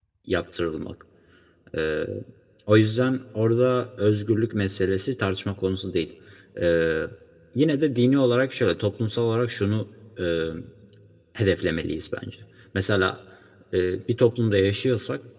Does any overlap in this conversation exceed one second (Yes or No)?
No